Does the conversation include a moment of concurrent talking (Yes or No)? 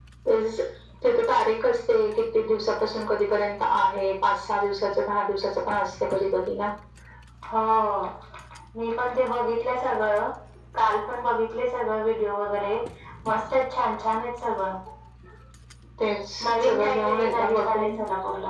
Yes